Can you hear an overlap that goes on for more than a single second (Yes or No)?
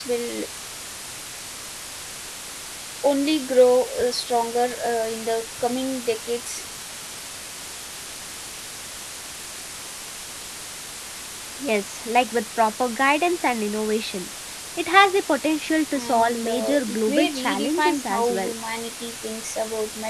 Yes